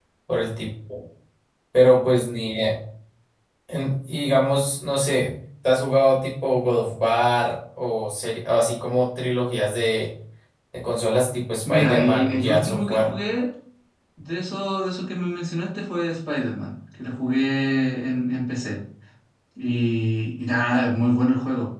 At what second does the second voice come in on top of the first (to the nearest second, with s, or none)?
12 s